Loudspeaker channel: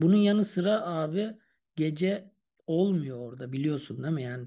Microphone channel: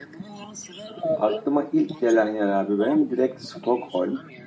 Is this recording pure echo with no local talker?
No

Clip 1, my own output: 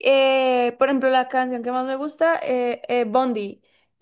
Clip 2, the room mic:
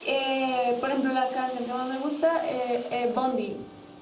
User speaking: No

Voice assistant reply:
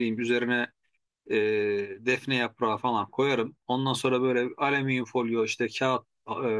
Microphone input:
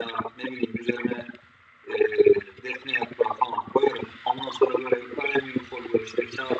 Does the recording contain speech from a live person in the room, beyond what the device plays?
No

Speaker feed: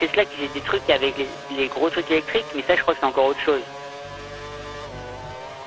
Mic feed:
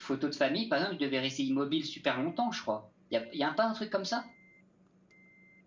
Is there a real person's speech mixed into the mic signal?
Yes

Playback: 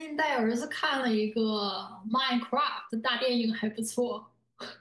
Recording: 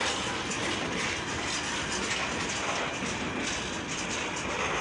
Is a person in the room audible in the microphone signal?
No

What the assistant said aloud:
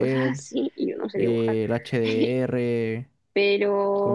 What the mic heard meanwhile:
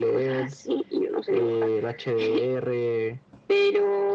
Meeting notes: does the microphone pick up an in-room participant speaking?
No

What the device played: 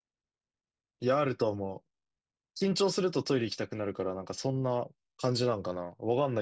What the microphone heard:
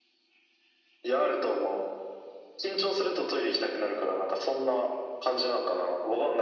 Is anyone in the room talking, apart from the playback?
No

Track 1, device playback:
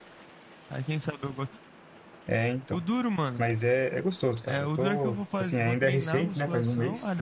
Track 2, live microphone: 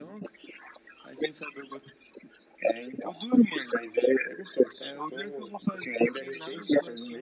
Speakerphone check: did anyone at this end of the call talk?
No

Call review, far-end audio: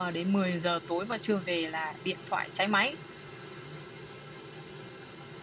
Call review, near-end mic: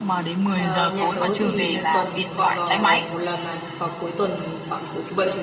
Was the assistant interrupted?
Yes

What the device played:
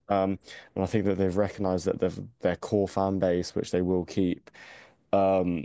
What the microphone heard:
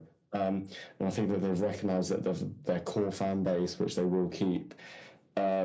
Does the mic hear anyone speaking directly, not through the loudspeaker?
No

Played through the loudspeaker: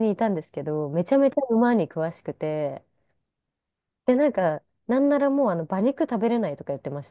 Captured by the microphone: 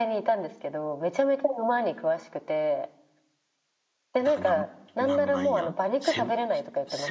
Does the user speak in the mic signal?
Yes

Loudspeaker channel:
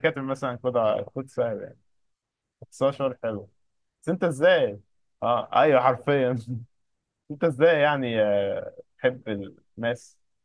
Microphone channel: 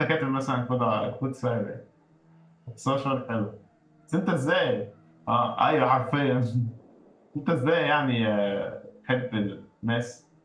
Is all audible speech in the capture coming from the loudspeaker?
Yes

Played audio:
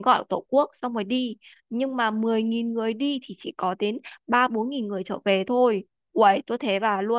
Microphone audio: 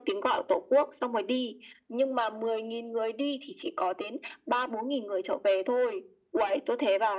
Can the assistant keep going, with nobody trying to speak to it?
Yes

